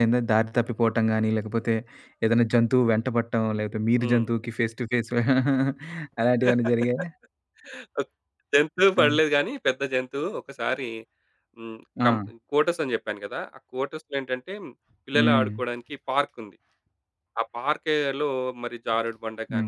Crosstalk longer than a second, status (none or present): none